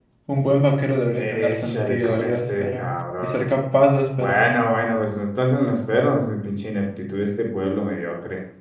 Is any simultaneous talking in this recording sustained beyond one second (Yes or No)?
Yes